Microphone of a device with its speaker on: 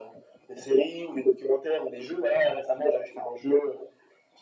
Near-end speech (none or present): none